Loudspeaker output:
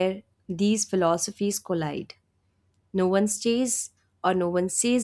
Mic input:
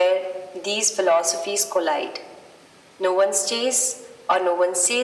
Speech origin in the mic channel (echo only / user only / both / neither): echo only